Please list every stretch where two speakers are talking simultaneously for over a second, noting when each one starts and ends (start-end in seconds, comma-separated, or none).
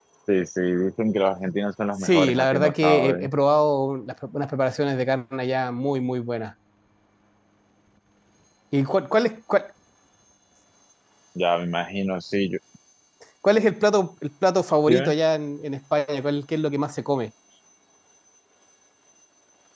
2.0-3.3